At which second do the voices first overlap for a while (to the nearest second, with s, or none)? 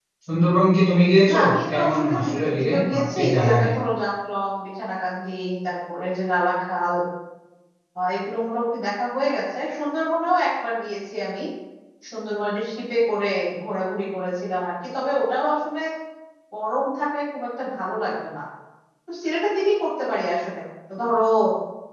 1 s